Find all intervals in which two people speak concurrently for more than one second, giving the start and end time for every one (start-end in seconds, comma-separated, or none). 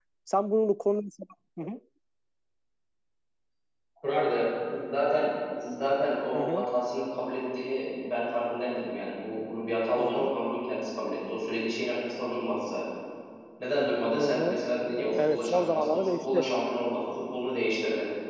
15.2-16.5